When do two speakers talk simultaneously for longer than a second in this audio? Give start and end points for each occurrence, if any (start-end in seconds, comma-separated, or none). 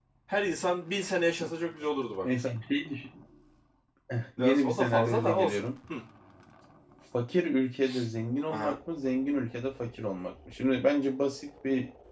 4.4-5.6